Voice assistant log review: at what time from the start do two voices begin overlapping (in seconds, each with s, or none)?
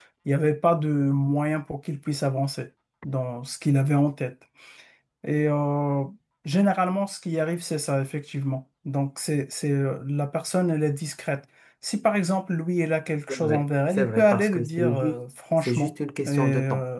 13.3 s